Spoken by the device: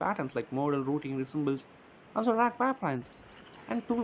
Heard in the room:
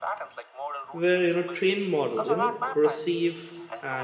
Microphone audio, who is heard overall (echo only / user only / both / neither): both